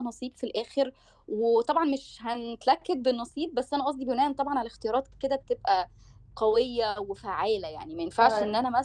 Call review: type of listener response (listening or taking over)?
listening